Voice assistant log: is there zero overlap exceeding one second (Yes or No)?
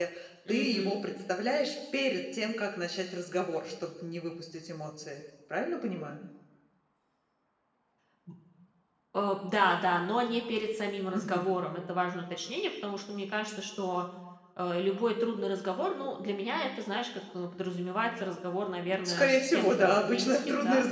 No